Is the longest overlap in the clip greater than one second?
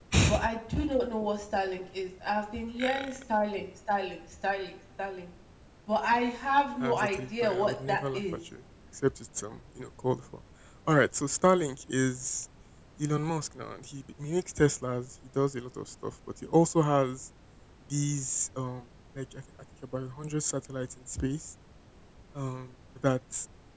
Yes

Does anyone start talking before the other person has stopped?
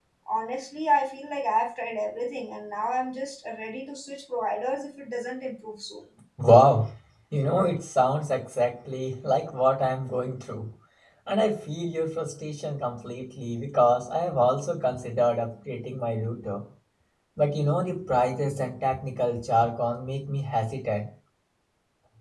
No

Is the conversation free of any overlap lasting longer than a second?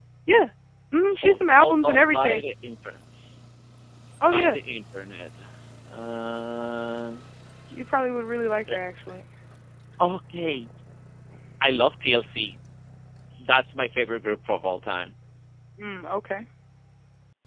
No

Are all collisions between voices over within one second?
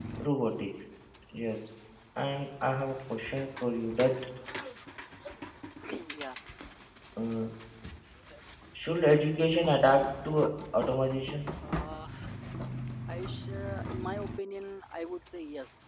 Yes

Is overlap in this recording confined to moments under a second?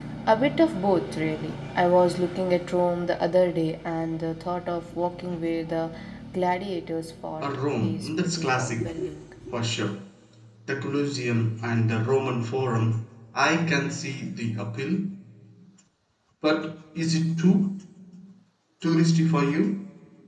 No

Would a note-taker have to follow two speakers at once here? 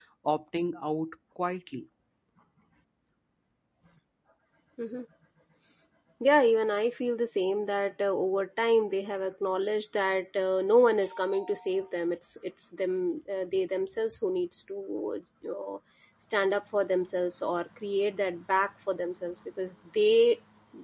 No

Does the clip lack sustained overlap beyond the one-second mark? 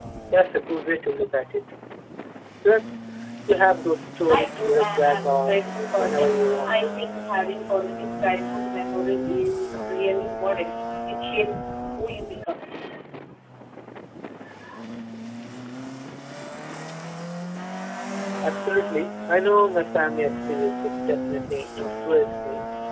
No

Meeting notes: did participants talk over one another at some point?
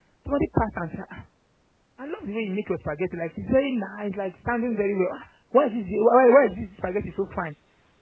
No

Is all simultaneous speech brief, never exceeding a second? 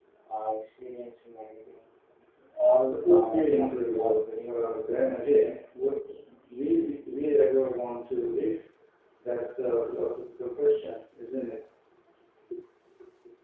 No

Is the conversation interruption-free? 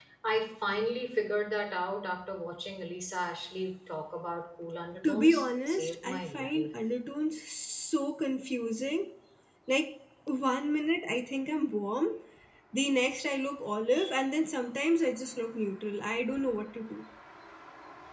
No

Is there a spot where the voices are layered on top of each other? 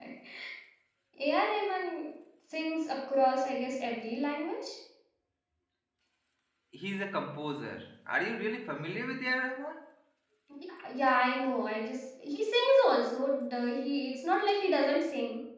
No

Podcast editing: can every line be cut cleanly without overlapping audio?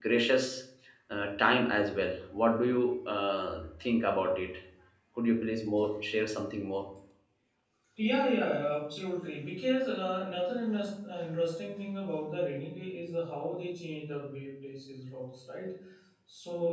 Yes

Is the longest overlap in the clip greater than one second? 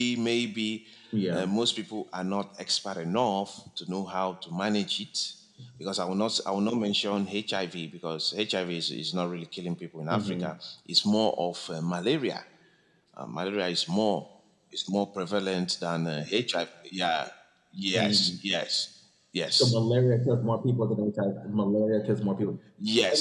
No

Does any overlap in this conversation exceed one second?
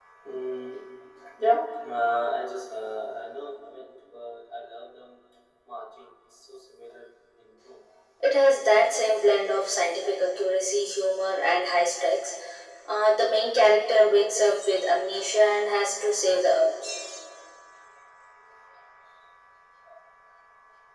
No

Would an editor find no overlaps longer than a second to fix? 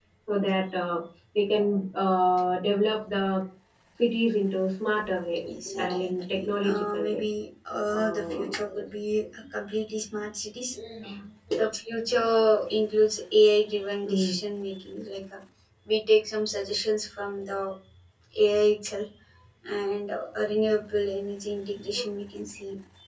No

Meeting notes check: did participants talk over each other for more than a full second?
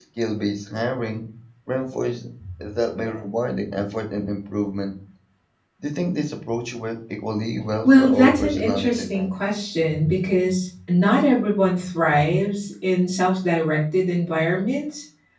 Yes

